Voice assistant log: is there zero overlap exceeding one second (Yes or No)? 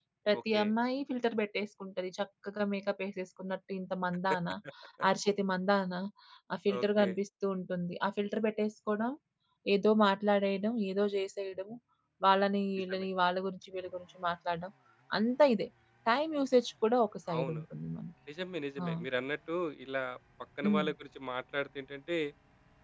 Yes